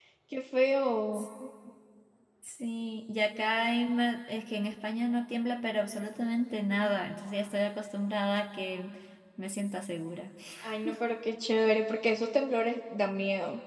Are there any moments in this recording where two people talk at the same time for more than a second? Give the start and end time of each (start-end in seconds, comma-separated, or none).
none